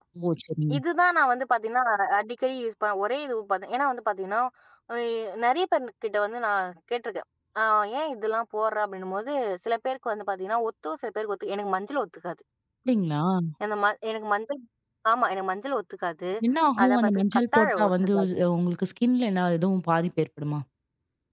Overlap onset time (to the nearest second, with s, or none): 17 s